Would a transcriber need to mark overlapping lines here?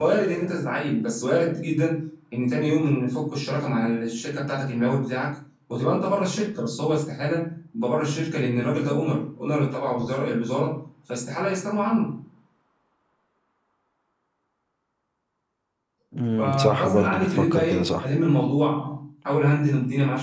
Yes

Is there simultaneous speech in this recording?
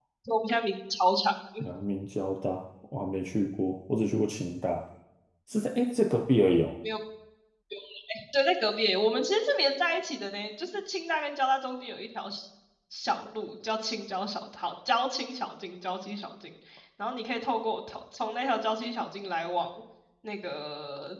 No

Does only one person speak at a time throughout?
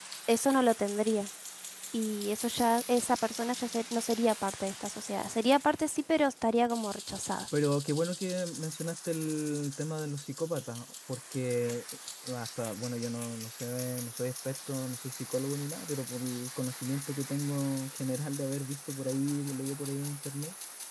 Yes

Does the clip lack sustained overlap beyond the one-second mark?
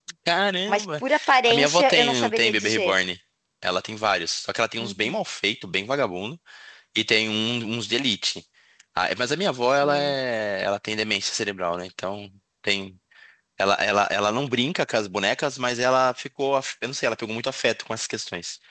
No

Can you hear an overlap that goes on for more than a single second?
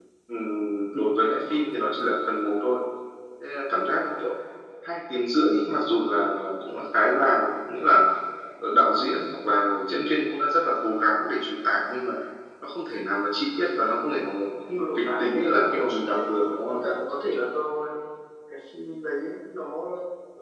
Yes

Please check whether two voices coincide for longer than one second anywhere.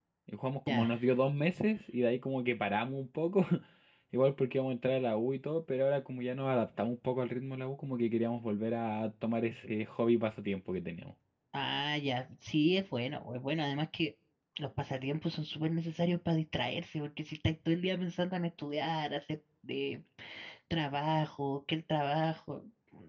No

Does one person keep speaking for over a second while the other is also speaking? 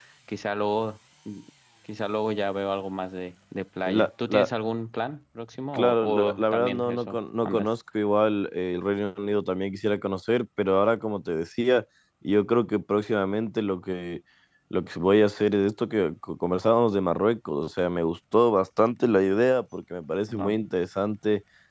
Yes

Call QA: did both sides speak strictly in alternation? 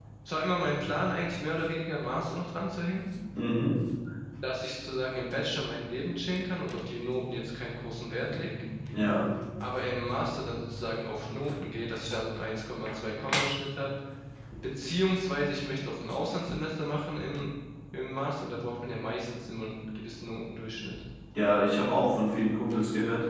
Yes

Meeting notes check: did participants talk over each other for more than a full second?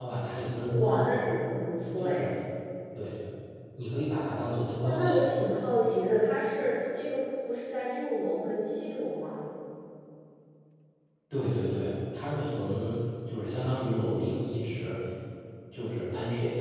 No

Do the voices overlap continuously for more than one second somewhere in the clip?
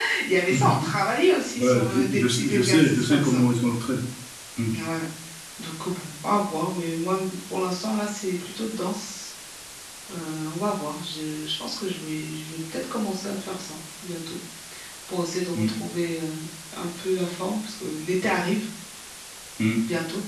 Yes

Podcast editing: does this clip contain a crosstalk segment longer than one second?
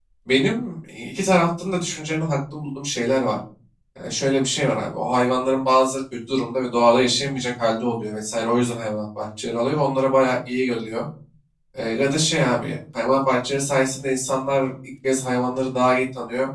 No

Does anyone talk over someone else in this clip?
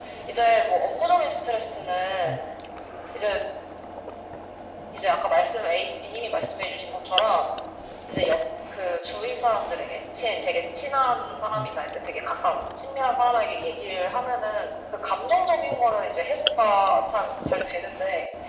No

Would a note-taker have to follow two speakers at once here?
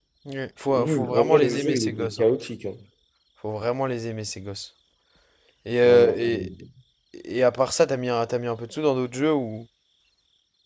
Yes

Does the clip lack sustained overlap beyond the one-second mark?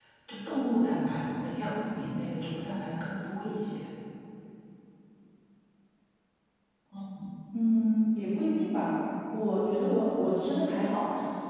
Yes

